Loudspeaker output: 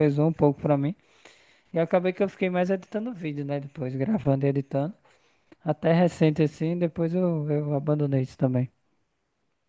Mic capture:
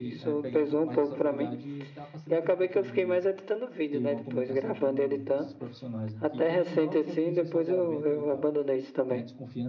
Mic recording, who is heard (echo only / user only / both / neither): both